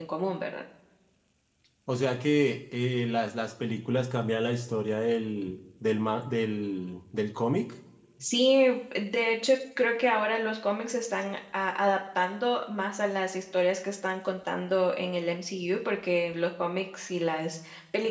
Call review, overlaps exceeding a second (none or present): none